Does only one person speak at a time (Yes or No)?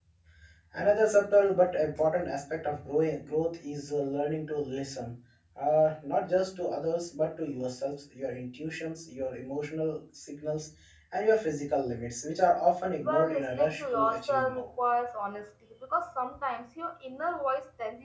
No